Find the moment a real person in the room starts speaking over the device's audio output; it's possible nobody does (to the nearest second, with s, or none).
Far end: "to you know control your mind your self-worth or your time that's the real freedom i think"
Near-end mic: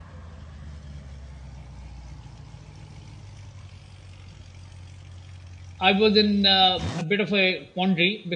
6 s